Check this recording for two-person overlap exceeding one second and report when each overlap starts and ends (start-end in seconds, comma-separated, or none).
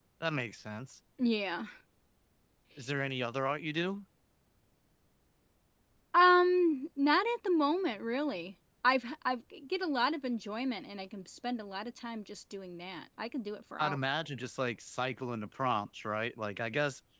none